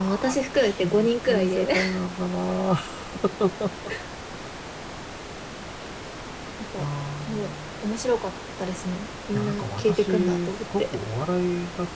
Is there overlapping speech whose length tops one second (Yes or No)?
Yes